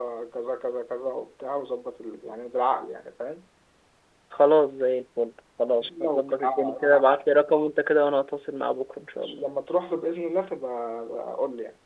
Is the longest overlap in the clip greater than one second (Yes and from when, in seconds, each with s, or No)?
Yes, from 5.7 s